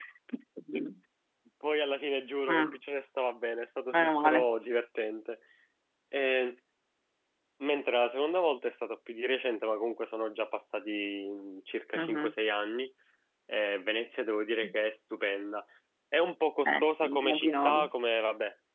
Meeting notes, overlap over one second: present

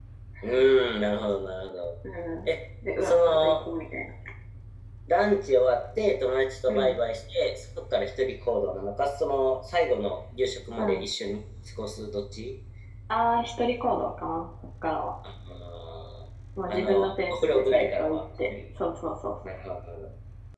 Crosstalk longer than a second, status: present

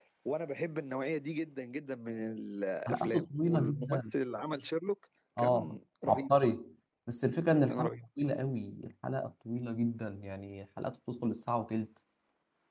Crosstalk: present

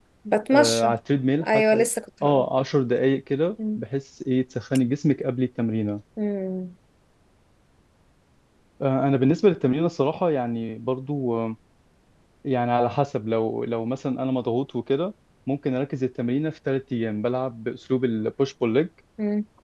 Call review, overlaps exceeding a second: none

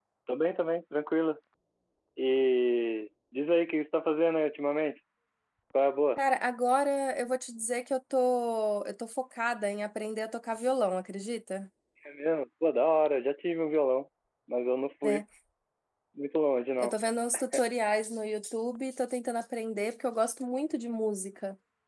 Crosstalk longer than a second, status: none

